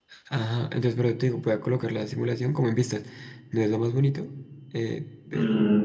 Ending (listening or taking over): taking over